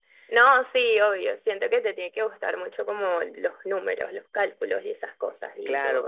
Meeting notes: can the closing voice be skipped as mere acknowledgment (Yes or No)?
No